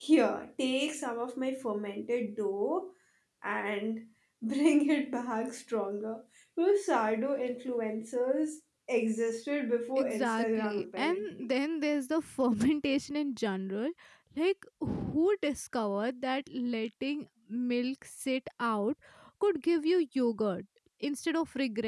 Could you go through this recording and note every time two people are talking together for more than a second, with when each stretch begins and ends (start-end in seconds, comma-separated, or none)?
9.9-11.5